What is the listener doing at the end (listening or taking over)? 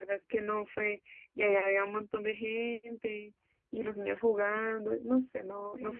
taking over